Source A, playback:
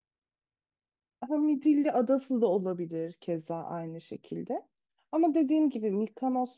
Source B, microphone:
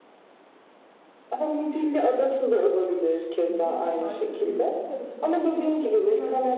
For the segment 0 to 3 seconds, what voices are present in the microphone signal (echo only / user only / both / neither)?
echo only